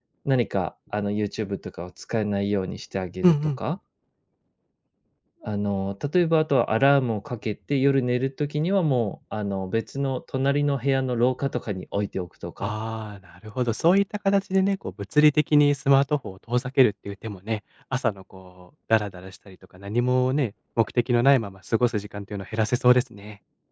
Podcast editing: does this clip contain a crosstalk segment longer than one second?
No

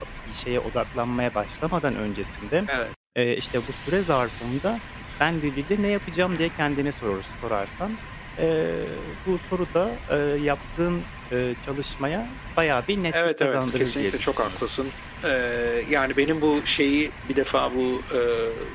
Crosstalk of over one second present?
Yes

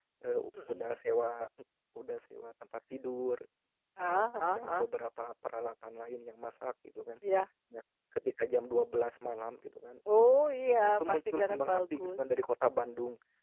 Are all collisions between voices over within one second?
No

